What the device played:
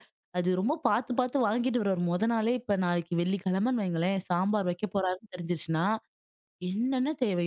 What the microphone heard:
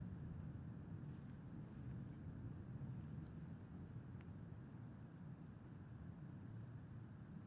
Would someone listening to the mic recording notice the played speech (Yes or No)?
No